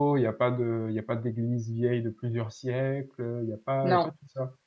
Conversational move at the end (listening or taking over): listening